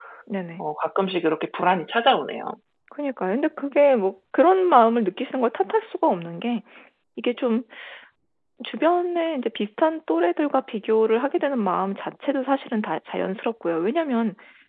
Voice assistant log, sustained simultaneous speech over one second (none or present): none